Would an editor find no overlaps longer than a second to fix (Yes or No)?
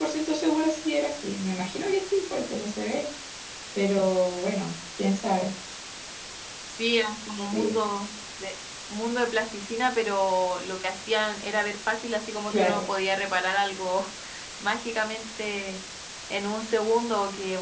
Yes